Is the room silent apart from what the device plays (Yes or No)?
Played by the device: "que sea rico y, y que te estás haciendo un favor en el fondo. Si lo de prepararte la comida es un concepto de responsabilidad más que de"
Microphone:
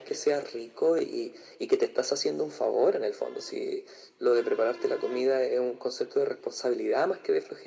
Yes